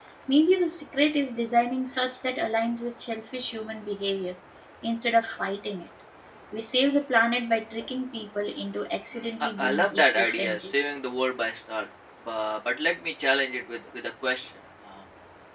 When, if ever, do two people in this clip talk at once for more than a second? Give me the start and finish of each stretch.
9.1-10.7

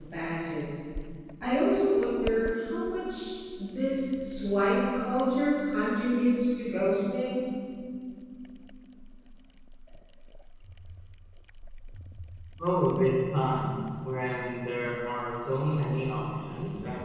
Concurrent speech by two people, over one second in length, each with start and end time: none

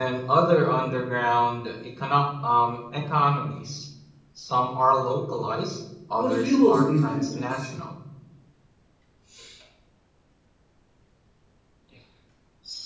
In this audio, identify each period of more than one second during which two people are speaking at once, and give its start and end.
6.2-7.7

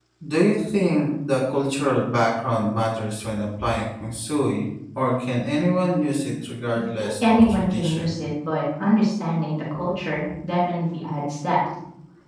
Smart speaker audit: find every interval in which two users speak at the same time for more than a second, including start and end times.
6.8-8.2

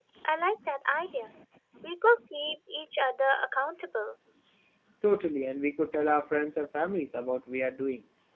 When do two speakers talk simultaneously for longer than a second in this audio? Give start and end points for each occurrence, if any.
none

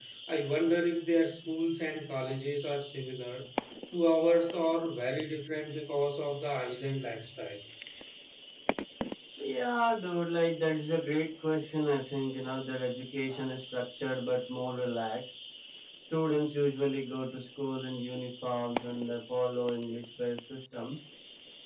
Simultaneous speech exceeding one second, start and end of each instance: none

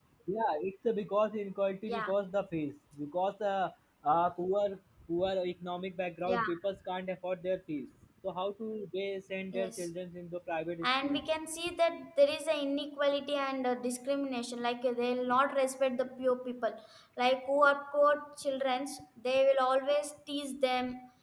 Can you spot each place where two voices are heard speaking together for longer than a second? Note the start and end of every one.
none

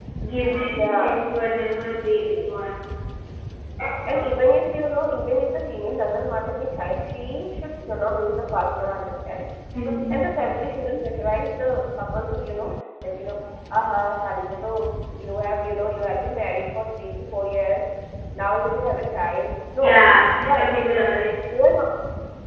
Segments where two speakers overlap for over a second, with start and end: none

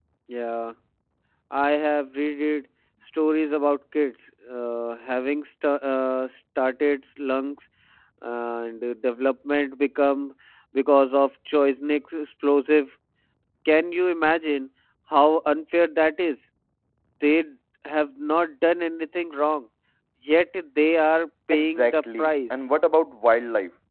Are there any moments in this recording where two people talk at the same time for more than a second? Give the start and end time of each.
21.5-22.8

